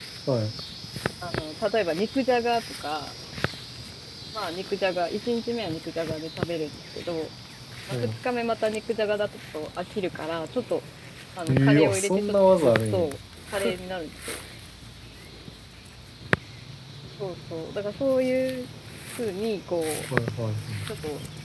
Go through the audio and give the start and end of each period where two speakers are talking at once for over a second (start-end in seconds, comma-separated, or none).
11.5-13.1